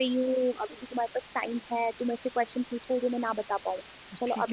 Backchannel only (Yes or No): No